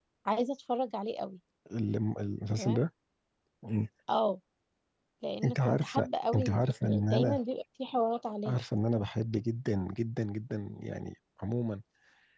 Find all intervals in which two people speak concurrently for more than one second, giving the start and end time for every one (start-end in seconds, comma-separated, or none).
5.4-7.4